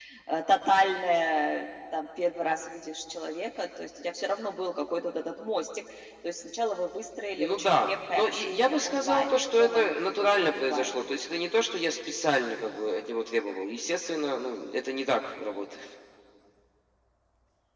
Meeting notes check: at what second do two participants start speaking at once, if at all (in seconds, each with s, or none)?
7.4 s